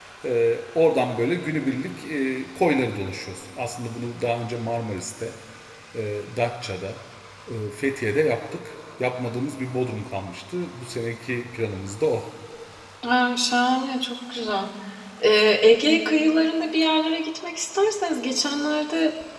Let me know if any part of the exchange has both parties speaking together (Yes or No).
No